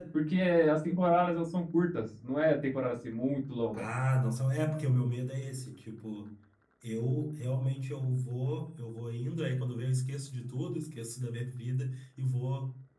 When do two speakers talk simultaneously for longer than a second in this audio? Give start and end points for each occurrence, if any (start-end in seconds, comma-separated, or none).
none